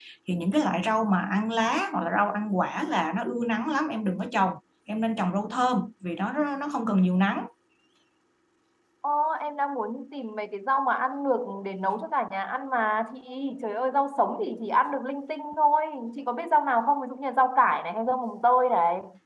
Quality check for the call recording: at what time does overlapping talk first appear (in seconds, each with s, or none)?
none